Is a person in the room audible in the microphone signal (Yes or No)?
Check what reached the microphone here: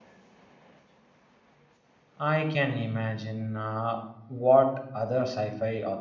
Yes